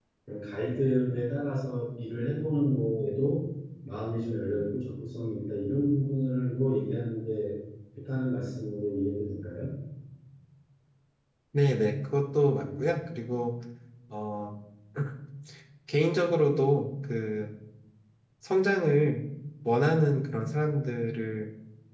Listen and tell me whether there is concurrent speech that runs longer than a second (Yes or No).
No